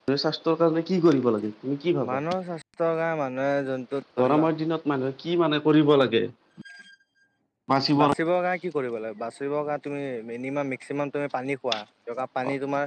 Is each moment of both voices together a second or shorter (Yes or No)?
Yes